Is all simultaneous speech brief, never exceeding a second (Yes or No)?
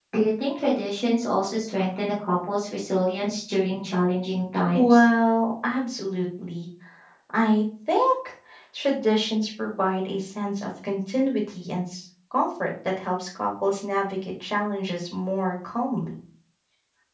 Yes